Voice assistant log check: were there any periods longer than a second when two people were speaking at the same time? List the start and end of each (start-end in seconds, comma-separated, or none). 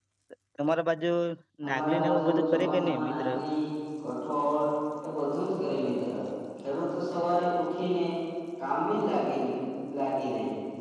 1.7-3.3